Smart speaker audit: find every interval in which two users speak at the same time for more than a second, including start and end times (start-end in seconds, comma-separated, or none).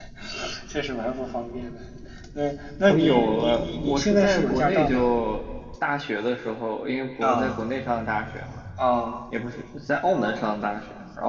2.9-5.0